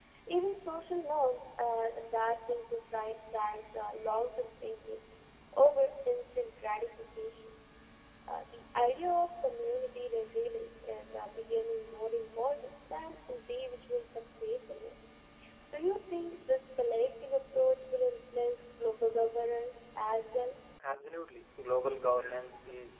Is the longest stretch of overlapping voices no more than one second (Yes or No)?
Yes